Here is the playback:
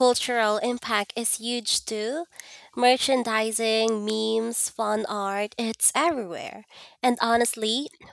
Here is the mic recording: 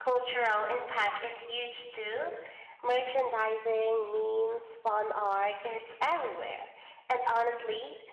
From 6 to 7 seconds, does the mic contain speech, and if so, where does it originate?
echo only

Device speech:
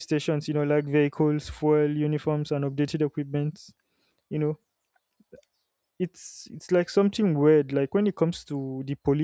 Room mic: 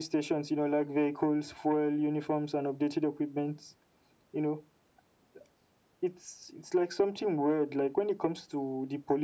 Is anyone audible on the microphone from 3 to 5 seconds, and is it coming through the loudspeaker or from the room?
echo only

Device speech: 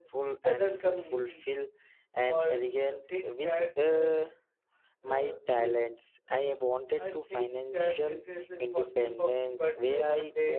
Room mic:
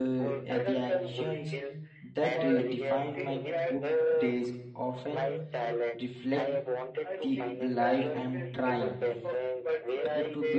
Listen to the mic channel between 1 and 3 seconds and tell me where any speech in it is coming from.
both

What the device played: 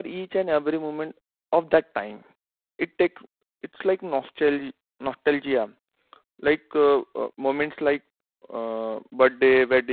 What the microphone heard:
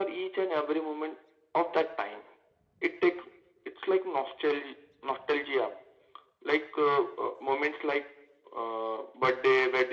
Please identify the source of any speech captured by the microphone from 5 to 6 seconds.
echo only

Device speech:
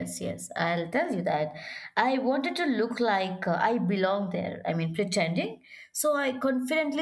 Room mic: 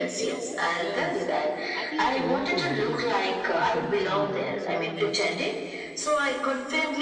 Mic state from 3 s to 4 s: both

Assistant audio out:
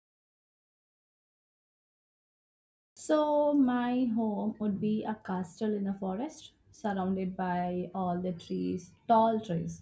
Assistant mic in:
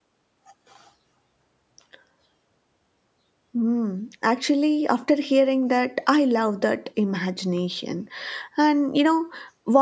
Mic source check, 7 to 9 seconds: user only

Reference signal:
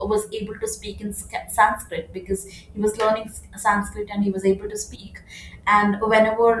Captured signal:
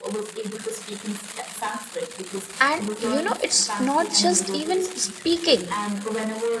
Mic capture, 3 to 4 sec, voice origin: both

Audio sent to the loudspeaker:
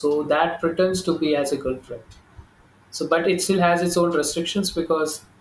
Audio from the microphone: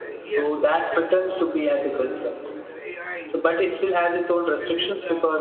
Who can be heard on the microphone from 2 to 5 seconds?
both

